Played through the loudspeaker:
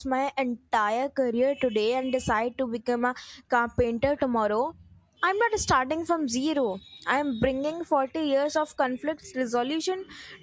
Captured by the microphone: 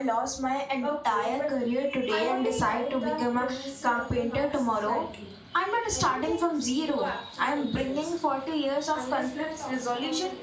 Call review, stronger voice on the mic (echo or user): echo